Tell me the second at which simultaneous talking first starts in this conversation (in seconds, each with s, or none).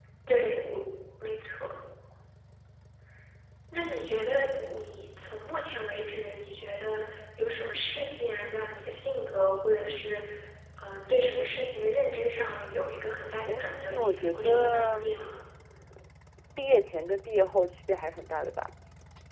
13.5 s